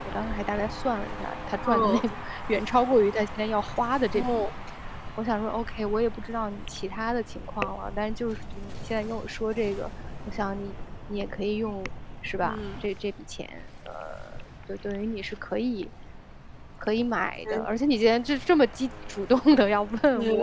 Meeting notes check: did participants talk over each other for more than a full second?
No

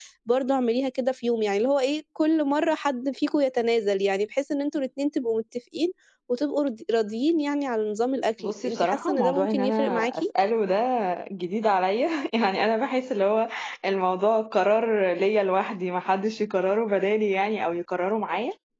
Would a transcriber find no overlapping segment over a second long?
No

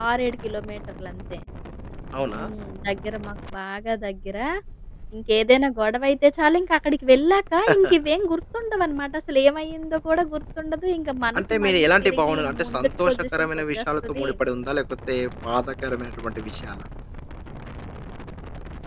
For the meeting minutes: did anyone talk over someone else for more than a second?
Yes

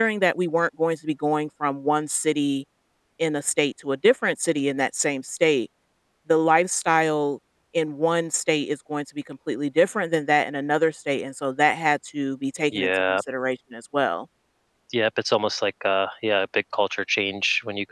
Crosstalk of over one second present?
No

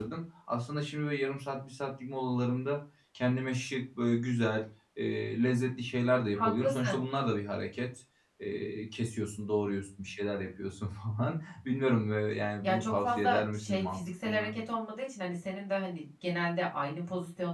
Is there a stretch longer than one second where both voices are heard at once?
Yes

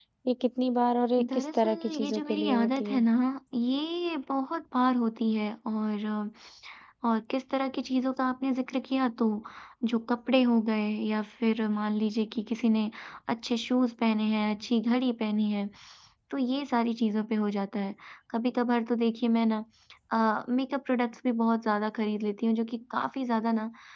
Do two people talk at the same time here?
Yes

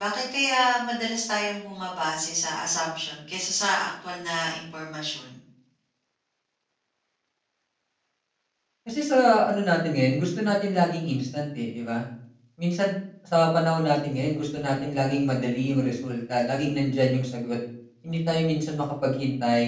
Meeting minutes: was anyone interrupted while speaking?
No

